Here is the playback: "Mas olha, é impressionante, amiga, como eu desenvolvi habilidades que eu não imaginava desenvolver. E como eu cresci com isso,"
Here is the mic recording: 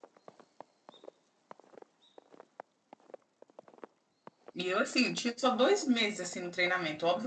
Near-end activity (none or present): present